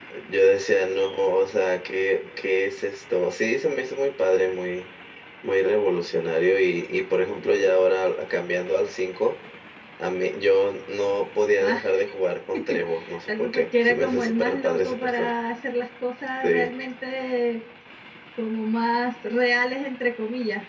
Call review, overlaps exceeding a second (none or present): present